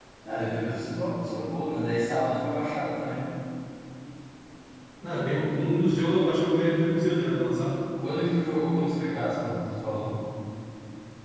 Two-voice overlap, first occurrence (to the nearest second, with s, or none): none